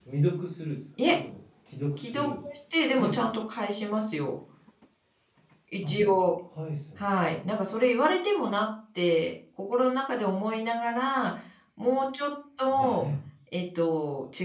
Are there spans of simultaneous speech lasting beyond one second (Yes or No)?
No